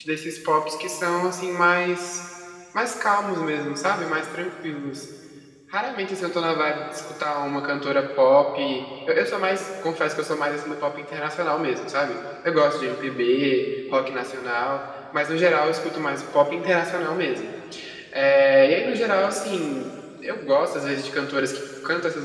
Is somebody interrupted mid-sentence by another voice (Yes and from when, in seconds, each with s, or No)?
No